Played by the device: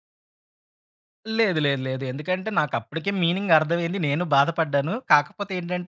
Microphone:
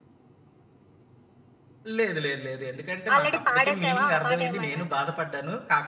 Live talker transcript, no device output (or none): ఆల్రెడీ పాడేసావా ఆ పాట ఏమన్నా?